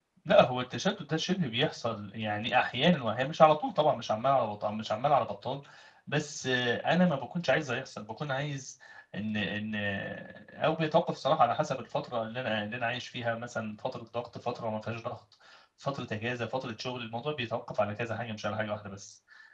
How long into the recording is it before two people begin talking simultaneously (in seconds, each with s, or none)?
none